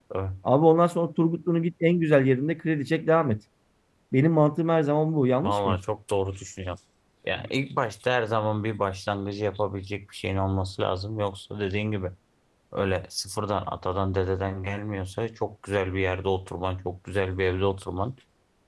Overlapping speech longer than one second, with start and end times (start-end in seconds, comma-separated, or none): none